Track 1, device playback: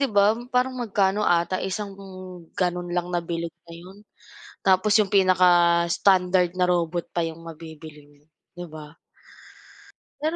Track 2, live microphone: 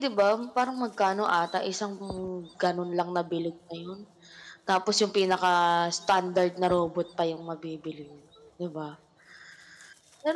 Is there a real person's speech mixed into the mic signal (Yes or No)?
No